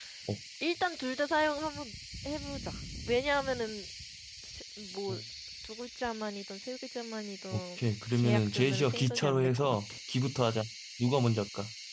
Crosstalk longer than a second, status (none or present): present